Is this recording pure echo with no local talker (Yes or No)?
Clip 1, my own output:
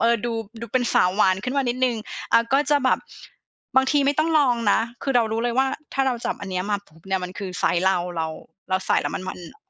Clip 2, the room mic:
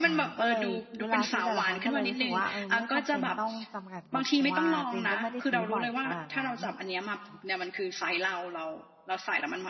No